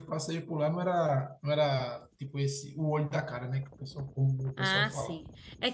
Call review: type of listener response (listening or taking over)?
taking over